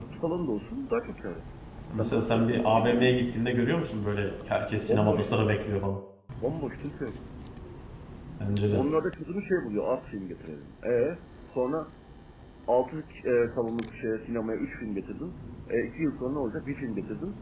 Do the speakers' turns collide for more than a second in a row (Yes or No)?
Yes